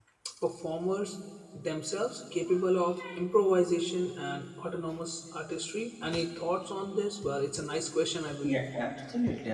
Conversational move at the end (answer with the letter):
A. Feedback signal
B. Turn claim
B